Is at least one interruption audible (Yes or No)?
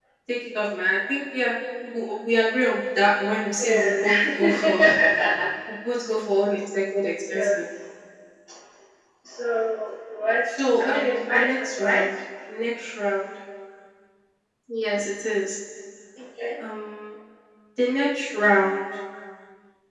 Yes